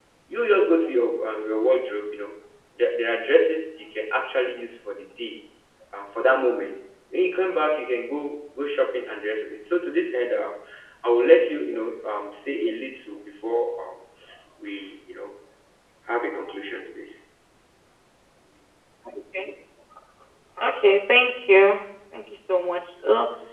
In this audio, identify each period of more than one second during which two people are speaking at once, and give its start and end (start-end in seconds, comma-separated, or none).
none